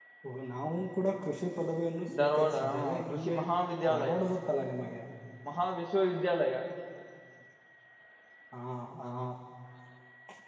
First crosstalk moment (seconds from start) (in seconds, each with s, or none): 2.1 s